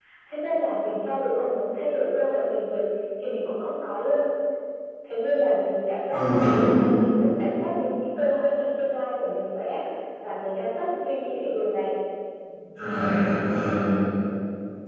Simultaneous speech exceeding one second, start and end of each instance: none

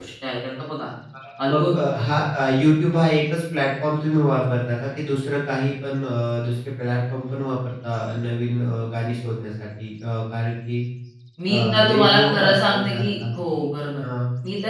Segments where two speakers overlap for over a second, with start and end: 11.5-13.1

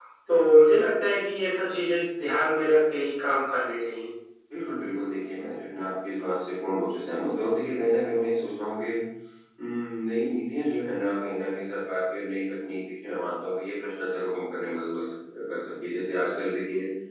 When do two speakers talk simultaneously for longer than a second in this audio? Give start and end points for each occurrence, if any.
none

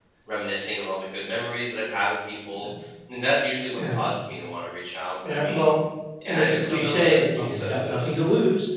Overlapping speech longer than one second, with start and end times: 6.3-8.2

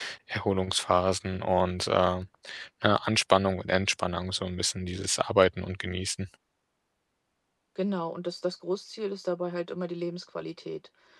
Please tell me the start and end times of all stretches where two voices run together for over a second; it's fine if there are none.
none

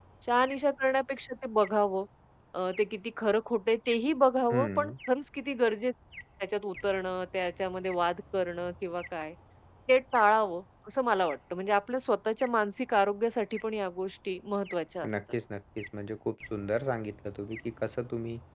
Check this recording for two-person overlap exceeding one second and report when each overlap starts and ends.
none

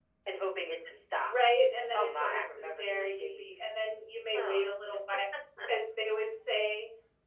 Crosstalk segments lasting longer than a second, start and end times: 1.9-3.6

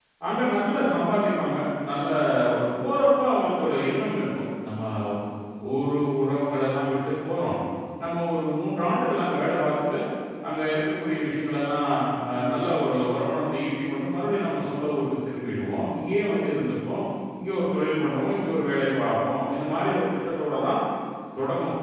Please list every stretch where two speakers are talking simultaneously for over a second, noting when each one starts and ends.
none

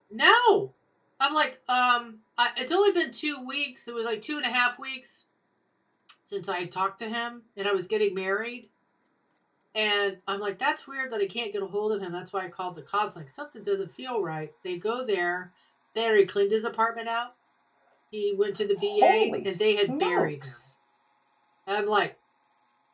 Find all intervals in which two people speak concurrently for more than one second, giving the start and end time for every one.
18.8-20.6

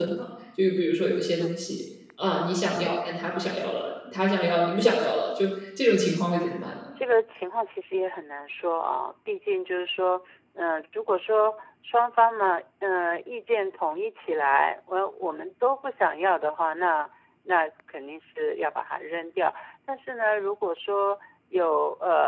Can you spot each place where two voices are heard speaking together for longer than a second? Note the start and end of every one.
none

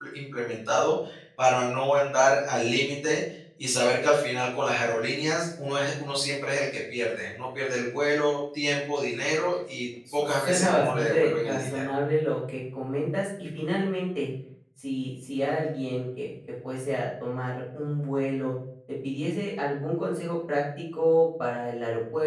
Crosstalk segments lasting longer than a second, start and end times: 10.1-11.9

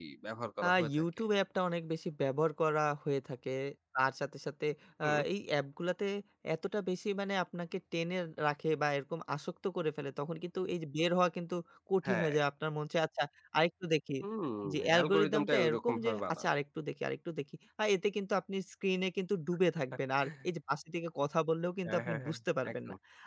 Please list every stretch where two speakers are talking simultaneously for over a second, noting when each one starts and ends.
14.7-16.5

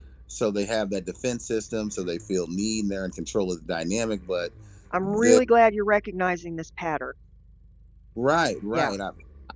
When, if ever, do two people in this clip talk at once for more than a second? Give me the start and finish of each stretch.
none

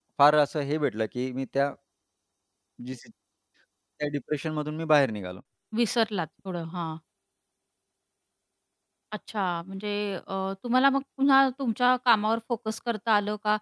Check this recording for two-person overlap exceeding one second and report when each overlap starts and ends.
none

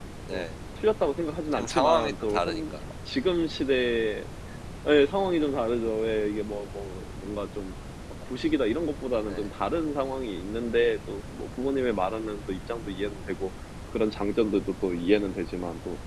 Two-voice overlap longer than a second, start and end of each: 1.5-2.8

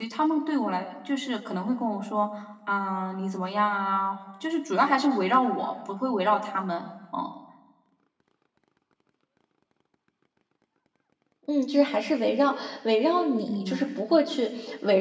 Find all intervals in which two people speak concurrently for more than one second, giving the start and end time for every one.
none

